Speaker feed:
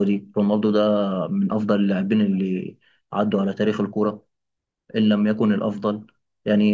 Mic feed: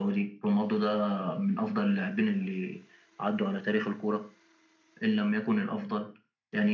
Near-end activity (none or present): none